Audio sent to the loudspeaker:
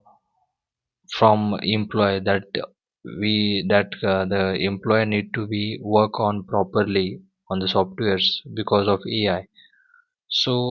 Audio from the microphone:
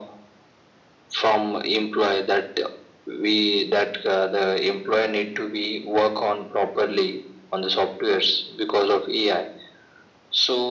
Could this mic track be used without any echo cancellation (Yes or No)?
No